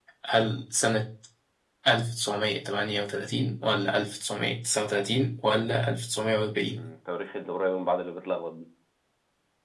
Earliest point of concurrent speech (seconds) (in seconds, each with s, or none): none